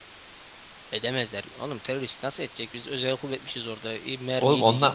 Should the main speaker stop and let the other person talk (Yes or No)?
Yes